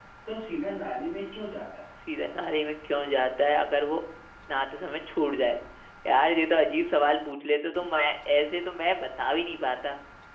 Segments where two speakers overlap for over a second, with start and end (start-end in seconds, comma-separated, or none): none